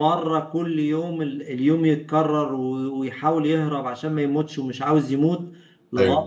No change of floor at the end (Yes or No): Yes